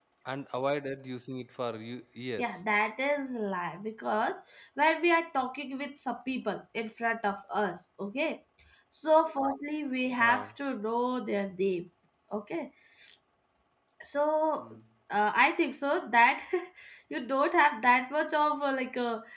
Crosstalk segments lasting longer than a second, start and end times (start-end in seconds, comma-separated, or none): none